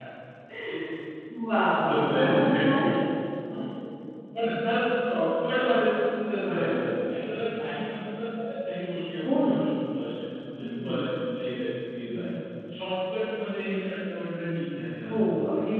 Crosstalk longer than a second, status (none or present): present